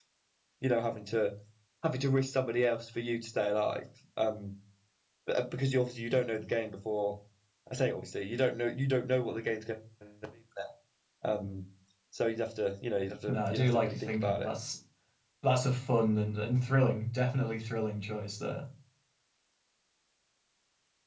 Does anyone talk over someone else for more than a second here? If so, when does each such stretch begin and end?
13.3-14.5

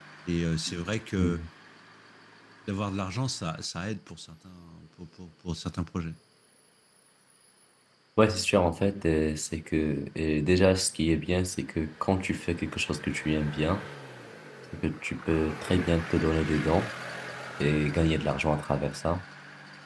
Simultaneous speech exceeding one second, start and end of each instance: none

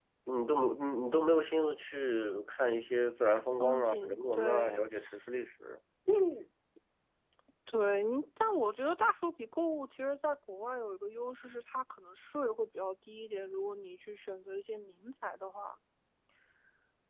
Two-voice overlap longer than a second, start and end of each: 3.6-4.8

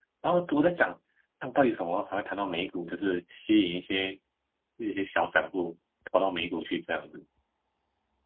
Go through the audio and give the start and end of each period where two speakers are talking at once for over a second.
none

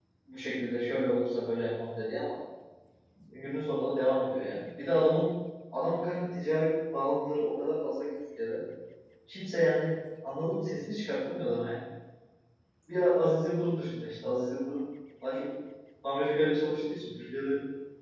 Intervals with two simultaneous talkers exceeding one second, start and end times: none

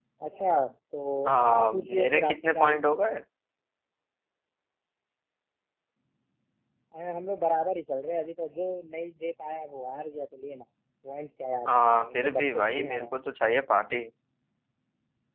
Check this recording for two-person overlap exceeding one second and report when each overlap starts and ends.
1.4-2.8, 11.7-13.1

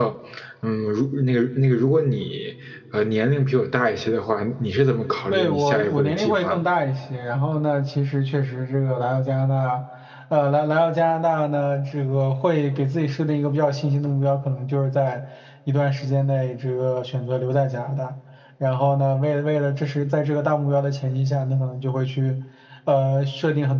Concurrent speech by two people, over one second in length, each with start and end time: 5.3-6.6

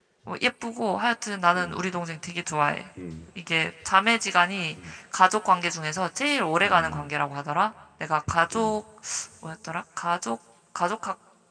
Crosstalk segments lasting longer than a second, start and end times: none

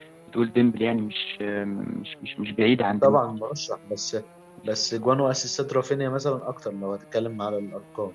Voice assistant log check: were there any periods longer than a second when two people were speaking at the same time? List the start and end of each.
none

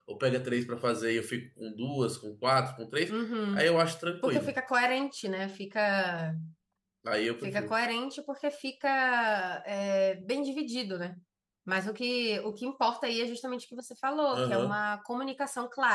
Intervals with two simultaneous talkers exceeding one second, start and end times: none

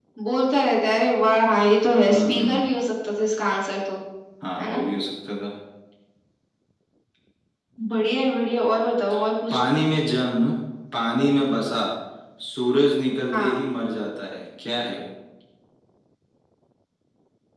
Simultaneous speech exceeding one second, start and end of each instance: none

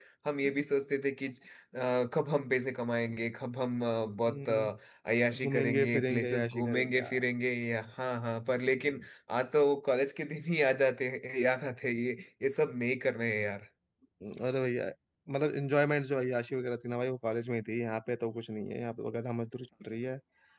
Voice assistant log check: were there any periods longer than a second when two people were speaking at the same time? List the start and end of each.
5.4-7.2

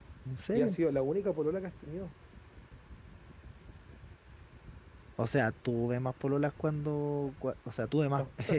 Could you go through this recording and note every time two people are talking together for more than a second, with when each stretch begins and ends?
none

